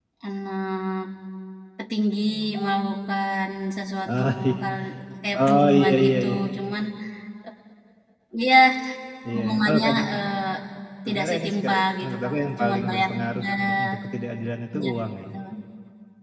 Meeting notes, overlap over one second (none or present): present